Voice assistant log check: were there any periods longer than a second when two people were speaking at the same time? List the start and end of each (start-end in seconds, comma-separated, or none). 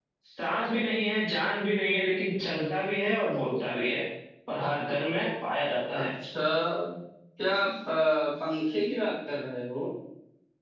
none